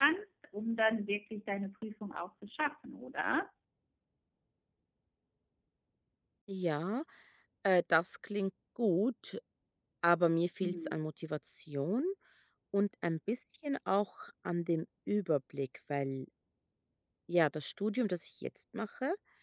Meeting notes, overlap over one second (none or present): none